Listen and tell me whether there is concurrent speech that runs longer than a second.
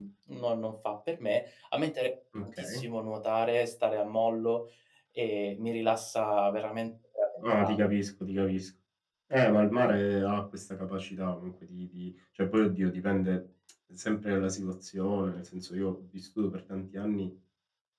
No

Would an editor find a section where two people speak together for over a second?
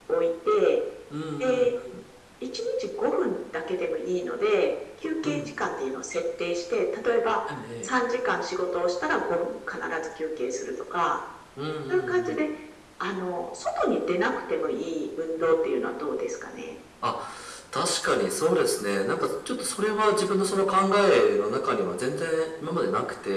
No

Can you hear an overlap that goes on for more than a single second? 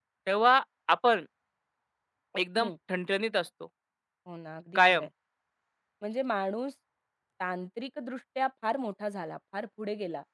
No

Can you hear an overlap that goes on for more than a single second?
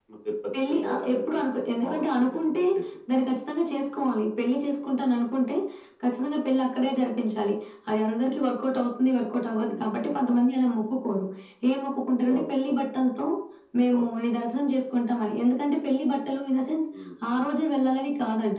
Yes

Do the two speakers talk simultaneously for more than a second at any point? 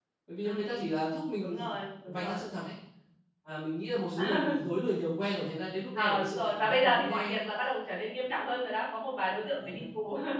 Yes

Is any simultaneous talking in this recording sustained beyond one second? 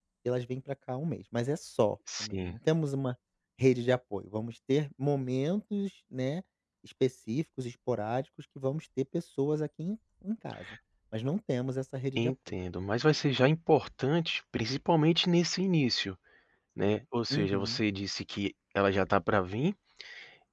No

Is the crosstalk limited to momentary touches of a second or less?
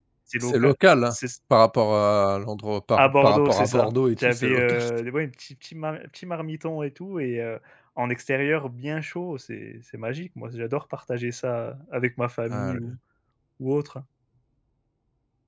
No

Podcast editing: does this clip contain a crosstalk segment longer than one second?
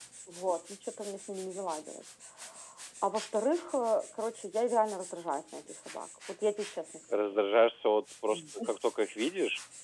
No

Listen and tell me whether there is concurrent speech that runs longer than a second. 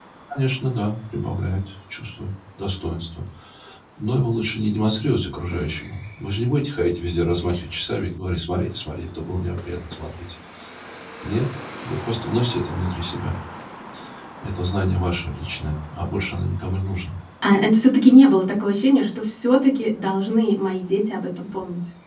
No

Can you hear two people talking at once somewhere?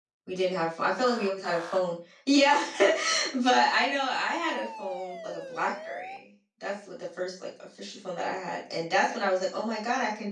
No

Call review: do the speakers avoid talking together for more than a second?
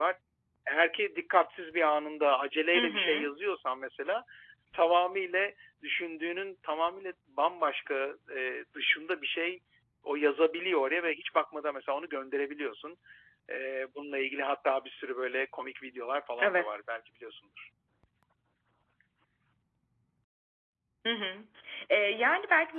Yes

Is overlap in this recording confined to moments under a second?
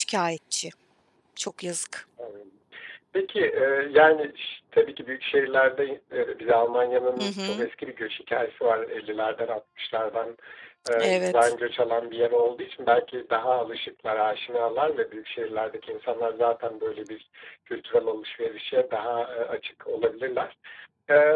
Yes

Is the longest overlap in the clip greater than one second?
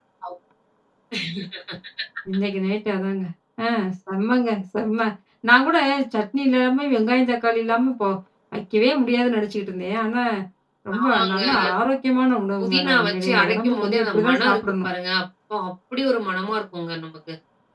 Yes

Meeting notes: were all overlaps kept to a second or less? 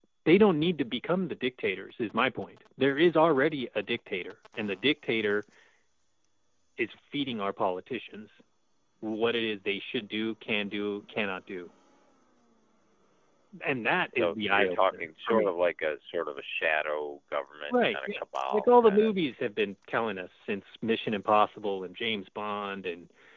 No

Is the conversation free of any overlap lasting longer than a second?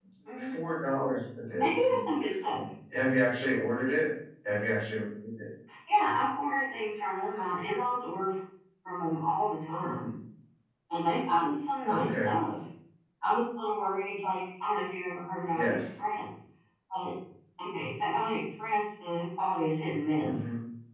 Yes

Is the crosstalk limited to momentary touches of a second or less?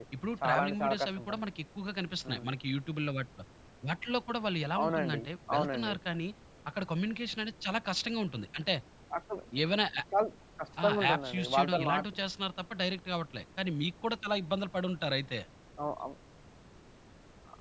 No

